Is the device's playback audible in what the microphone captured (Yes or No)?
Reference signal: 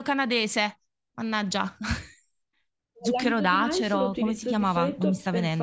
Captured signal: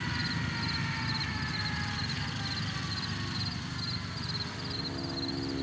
No